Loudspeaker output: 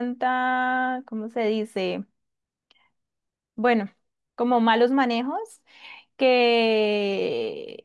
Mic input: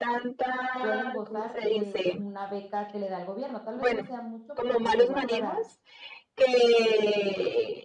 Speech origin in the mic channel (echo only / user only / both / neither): both